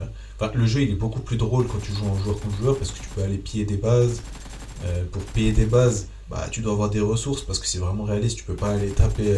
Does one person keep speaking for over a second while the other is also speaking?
No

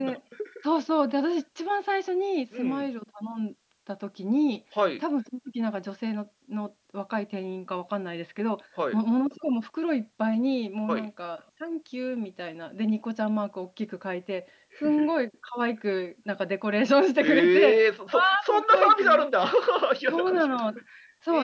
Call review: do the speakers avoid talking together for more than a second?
No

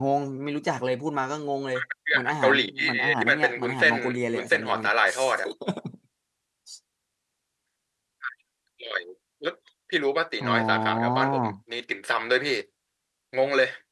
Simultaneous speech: Yes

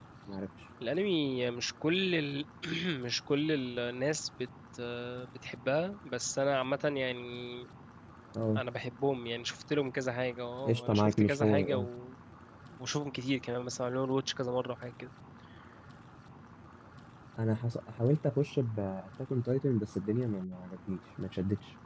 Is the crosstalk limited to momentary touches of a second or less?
No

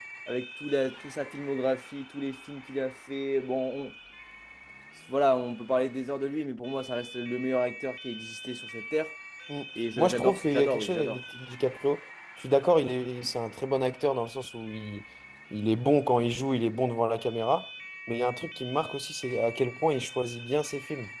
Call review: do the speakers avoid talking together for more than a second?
No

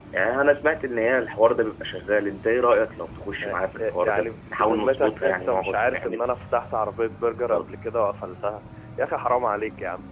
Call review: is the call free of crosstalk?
No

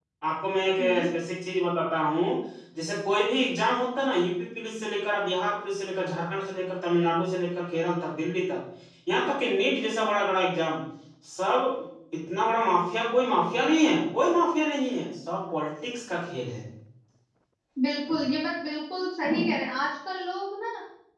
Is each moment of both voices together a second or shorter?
Yes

